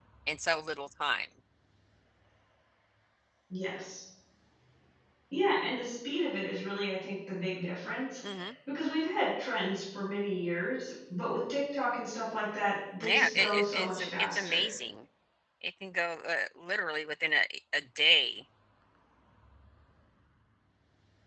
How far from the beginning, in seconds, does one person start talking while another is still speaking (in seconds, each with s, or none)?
13.0 s